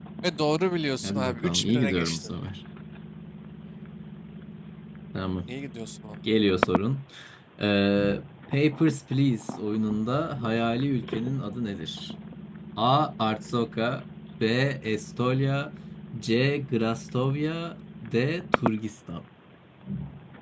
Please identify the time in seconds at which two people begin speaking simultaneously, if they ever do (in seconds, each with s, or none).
1.0 s